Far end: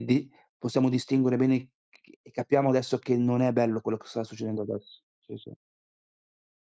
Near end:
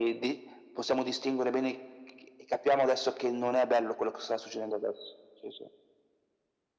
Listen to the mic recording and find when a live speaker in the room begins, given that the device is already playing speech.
none

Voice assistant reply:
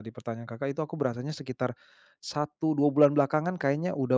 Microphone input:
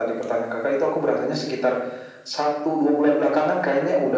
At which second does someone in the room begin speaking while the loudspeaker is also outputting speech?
none

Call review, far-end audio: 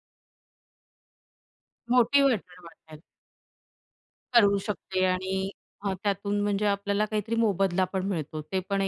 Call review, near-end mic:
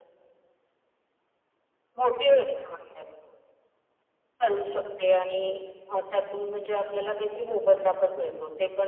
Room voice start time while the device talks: none

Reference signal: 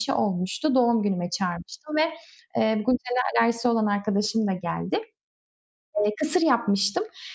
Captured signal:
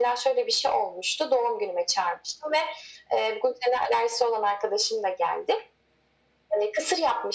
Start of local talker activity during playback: none

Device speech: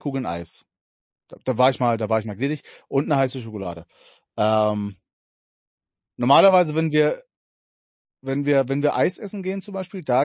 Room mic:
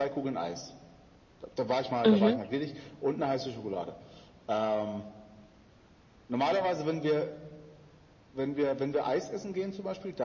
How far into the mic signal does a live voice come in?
2.0 s

